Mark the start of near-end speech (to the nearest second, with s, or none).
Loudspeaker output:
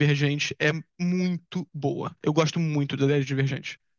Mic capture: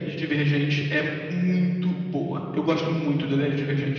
none